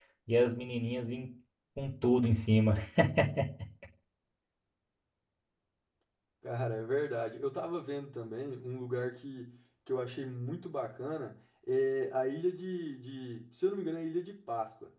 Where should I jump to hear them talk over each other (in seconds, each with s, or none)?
none